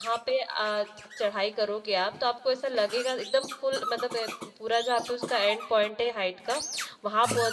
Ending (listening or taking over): listening